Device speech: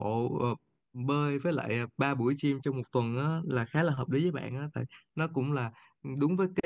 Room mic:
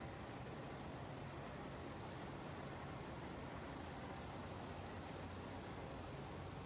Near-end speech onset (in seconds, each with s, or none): none